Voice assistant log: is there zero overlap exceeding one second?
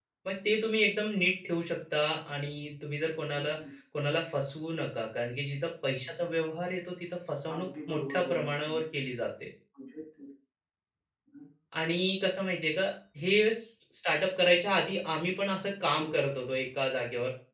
No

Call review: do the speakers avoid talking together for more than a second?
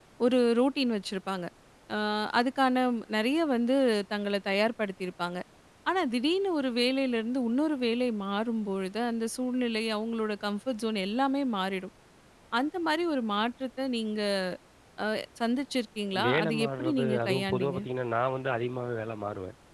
No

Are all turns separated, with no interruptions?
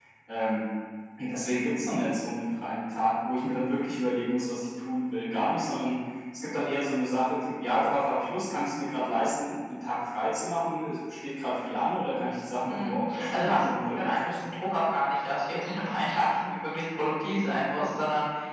No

